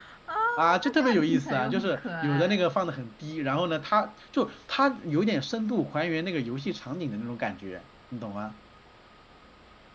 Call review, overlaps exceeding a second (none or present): present